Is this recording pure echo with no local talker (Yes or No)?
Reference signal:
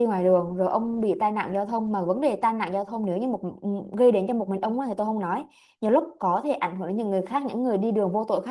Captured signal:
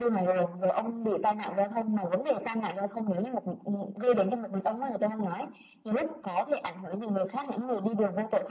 Yes